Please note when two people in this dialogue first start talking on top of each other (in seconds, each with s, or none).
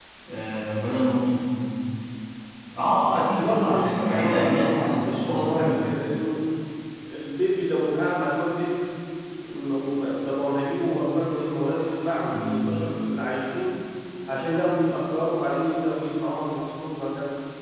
3.2 s